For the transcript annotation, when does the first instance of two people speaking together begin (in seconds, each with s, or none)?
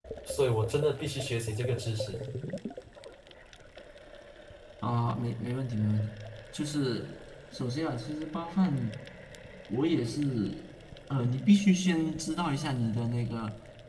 none